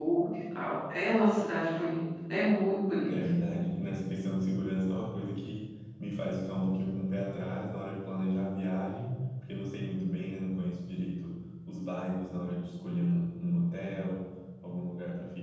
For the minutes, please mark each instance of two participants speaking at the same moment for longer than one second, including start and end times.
none

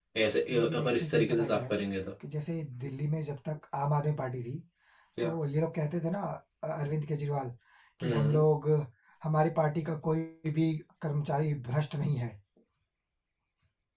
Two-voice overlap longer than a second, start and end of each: 0.5-1.7

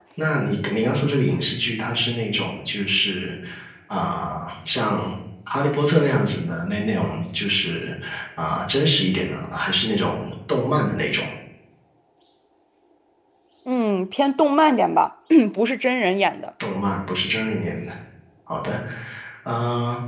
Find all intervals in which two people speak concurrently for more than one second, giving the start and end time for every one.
none

